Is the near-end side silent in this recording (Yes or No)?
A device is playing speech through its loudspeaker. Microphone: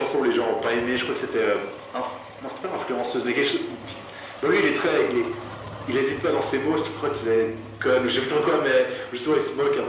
Yes